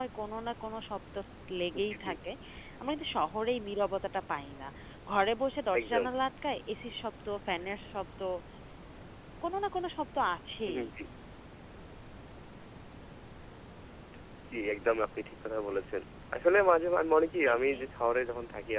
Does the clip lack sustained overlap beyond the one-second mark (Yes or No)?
Yes